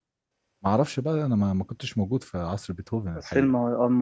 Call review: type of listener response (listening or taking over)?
taking over